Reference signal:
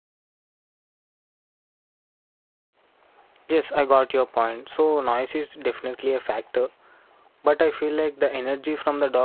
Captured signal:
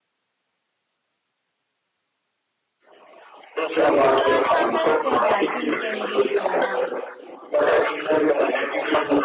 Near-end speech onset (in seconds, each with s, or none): 4.1 s